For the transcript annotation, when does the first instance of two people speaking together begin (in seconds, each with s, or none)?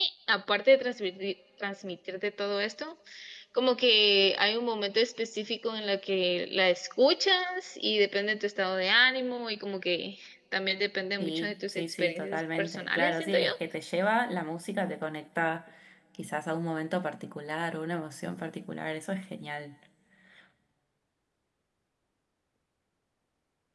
11.2 s